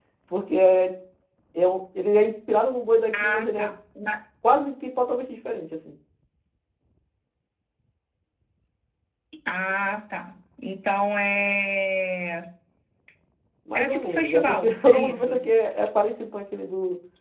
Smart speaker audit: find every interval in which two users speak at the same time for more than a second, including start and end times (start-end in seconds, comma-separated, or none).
13.8-15.4